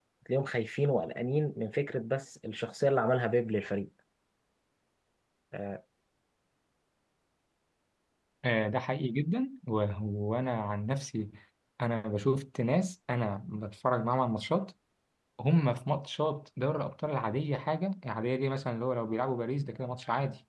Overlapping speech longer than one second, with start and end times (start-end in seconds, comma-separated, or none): none